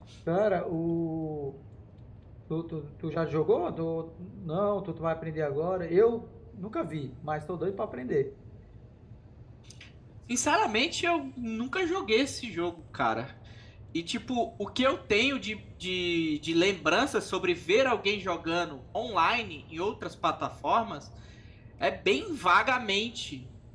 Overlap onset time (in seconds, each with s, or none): none